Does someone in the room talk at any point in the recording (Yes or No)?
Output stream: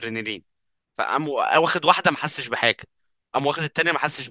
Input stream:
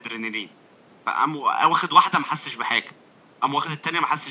No